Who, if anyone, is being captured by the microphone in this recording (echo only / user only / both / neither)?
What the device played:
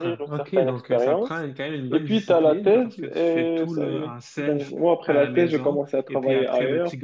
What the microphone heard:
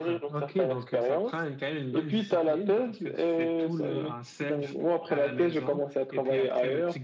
echo only